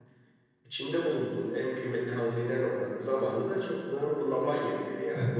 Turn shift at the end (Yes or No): Yes